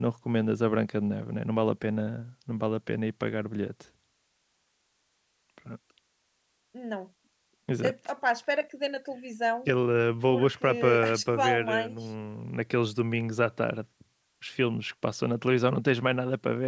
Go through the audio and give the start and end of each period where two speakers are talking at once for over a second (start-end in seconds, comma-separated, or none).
10.3-11.9